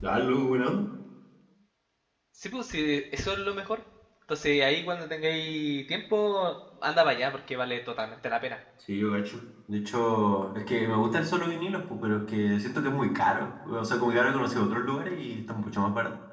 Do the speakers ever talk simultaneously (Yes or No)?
No